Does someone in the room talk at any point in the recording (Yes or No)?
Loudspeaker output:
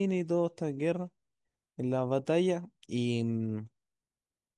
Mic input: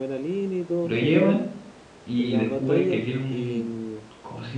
Yes